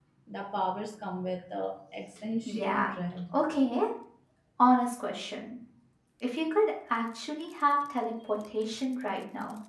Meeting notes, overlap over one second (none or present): none